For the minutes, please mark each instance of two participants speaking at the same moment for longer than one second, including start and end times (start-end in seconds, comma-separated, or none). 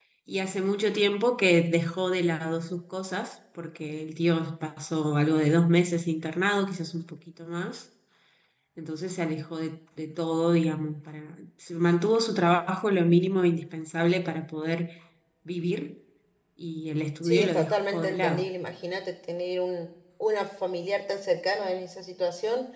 17.2-18.5